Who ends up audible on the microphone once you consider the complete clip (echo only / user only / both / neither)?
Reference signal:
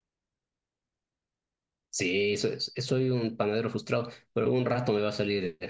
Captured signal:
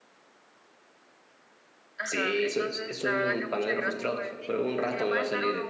both